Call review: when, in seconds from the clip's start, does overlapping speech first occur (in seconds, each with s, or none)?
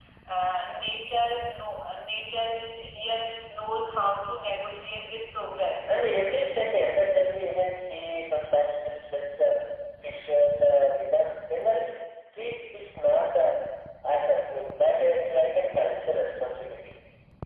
none